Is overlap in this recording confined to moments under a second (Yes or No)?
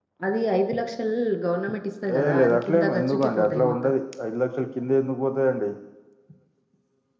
No